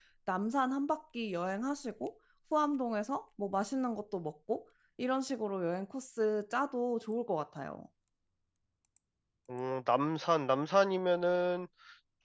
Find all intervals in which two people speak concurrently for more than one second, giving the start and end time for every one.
none

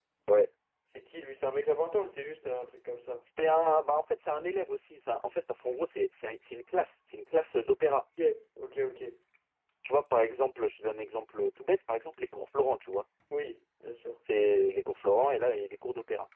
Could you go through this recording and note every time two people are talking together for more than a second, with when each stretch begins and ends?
none

